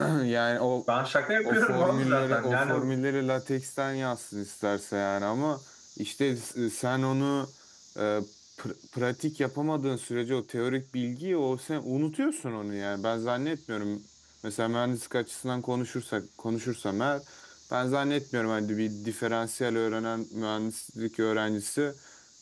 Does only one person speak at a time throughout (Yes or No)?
No